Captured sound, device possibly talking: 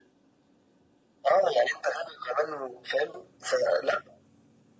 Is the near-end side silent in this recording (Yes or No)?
Yes